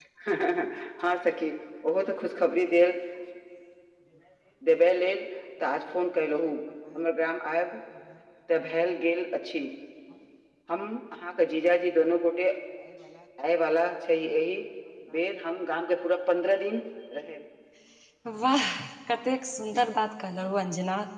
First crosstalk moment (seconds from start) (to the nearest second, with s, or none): none